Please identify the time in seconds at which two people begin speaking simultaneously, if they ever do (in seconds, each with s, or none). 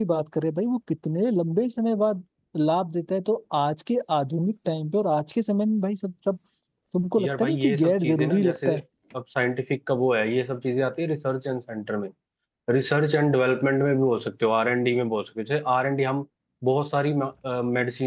7.2 s